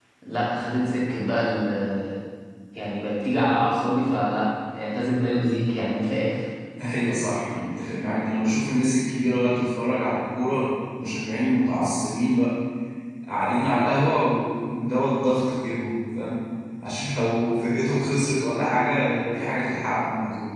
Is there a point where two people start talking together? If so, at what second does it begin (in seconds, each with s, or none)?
none